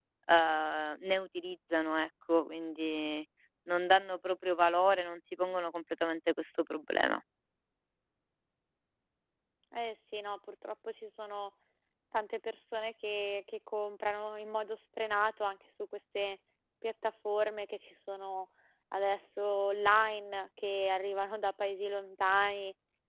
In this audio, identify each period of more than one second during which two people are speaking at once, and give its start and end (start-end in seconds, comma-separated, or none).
none